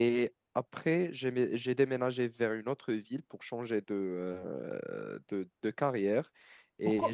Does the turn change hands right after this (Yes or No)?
Yes